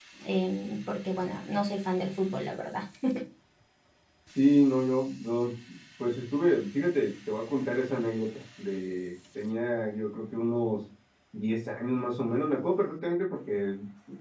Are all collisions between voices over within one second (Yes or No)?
Yes